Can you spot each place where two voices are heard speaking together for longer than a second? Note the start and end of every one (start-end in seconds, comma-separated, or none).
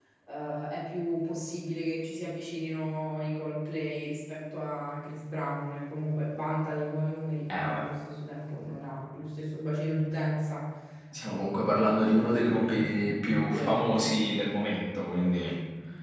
12.0-14.1